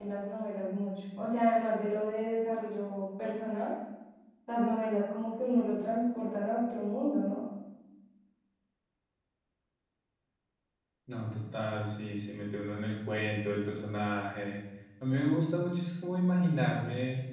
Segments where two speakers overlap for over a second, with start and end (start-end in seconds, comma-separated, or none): none